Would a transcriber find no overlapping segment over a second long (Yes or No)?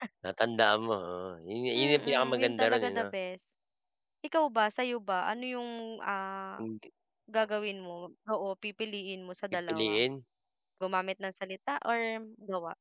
No